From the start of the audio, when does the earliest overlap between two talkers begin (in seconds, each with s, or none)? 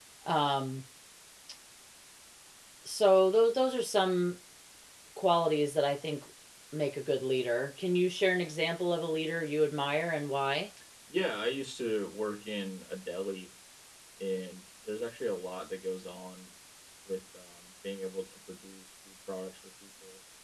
none